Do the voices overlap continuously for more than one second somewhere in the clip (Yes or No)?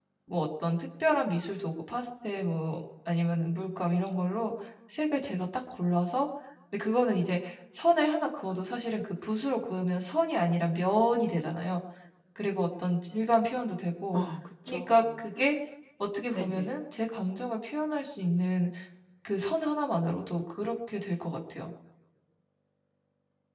No